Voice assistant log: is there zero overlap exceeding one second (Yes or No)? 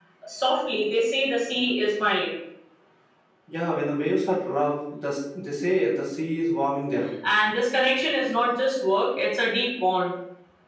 Yes